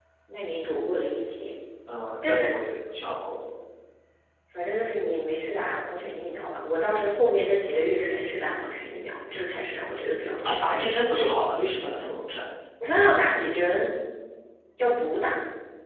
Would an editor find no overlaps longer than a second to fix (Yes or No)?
Yes